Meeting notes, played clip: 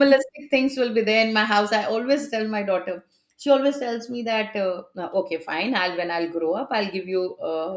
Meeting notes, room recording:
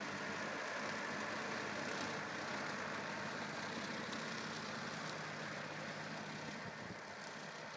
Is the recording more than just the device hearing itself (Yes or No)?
No